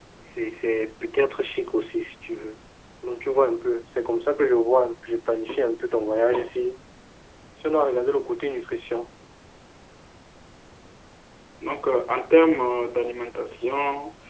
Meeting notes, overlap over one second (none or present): none